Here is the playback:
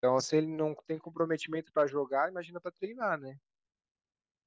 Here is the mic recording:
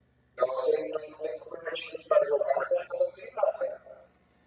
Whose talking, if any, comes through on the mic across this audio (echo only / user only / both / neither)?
echo only